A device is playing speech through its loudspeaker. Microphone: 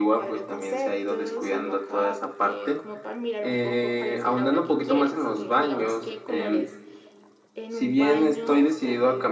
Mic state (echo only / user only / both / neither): both